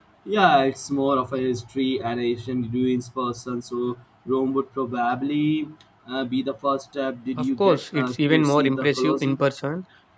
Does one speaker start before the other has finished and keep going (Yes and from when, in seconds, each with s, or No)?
Yes, from 7.4 s